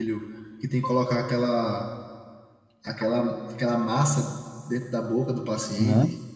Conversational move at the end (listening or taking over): taking over